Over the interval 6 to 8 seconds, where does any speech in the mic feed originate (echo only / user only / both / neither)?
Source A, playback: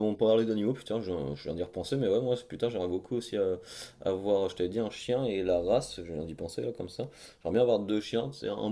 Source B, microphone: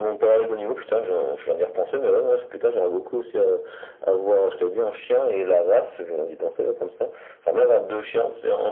echo only